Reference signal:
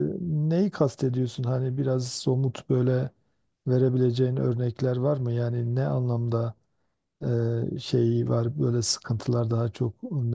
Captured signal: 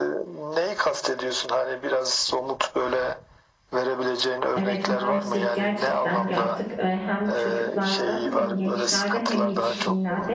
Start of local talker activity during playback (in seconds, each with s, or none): 4.5 s